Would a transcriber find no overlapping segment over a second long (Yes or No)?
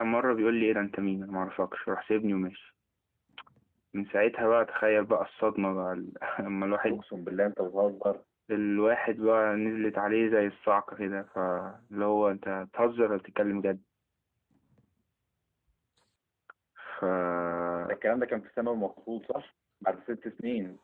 Yes